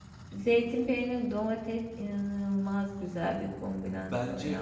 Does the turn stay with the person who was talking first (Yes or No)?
No